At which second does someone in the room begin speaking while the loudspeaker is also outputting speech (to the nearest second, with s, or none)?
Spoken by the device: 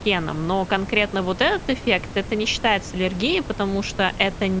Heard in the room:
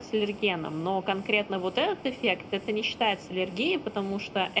none